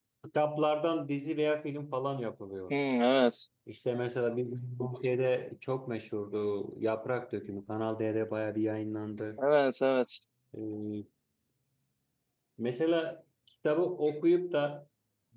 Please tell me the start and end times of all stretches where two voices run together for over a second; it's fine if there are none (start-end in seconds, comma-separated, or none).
none